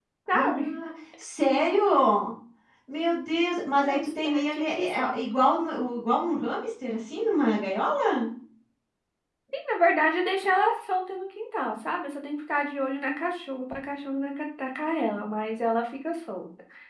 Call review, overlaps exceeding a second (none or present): present